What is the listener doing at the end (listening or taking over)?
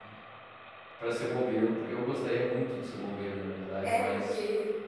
taking over